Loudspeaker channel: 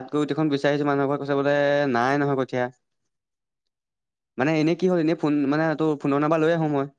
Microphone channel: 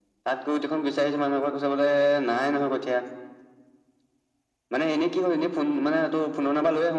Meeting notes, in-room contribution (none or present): none